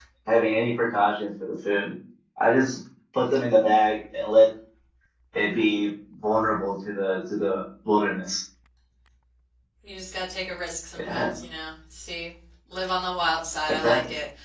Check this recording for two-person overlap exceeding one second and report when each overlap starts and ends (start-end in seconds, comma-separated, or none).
none